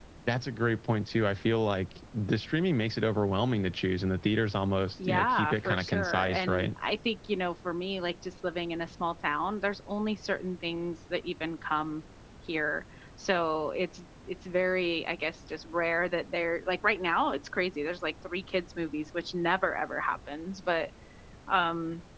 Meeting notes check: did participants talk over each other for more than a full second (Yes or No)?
Yes